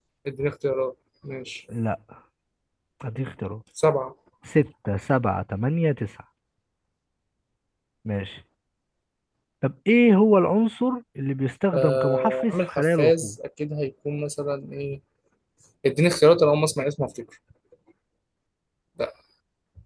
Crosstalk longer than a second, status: present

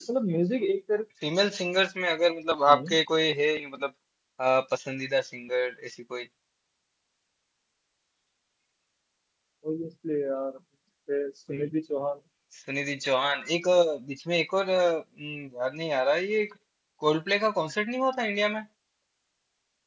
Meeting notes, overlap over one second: none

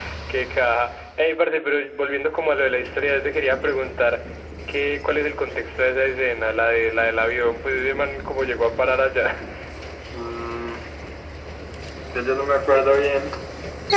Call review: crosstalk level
none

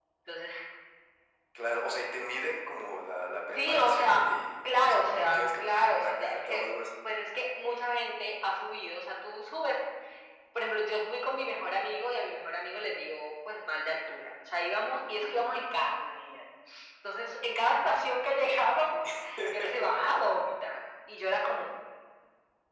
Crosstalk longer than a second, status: present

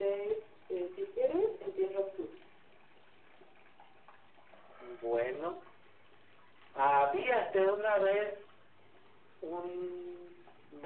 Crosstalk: none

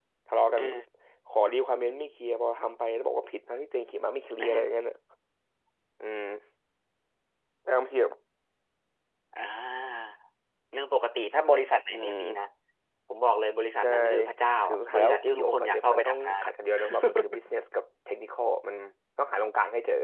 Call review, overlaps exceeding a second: present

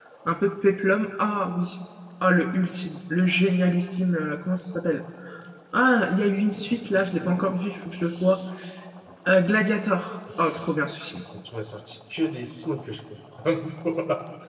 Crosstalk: none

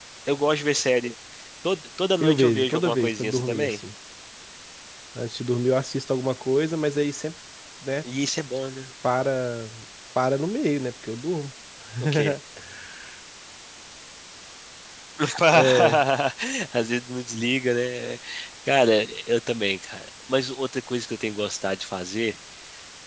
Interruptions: present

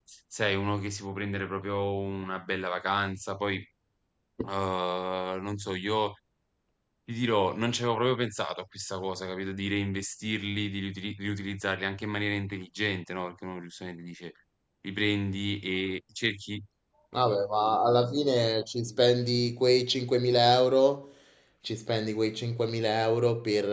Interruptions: none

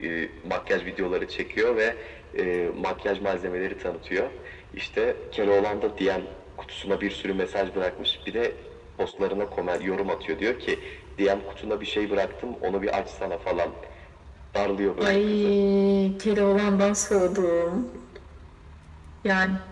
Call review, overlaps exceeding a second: none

